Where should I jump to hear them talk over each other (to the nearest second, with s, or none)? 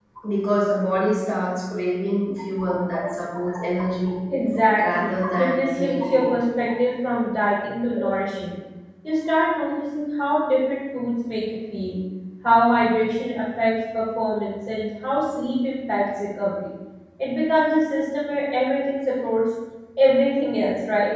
5 s